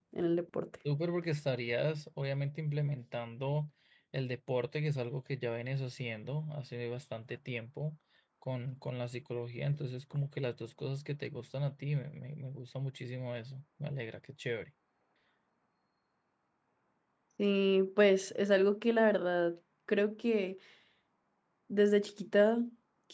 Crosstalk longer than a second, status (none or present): none